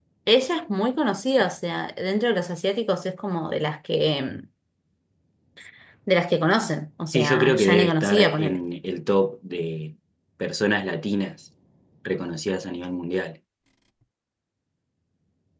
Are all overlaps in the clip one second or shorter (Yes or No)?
No